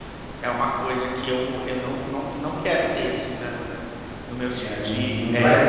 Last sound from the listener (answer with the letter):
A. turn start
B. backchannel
A